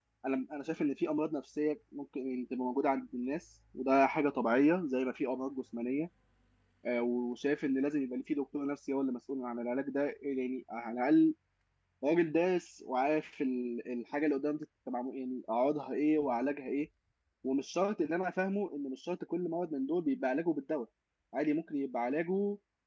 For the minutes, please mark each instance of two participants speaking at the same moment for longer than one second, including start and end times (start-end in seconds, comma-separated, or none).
none